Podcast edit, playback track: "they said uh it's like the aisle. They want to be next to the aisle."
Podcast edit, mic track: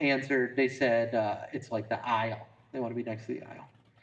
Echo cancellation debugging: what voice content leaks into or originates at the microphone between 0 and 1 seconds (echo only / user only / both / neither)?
echo only